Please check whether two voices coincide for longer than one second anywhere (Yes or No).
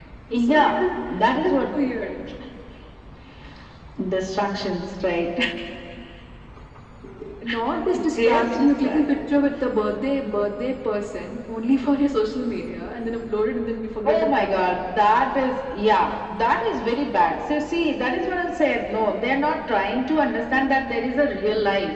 Yes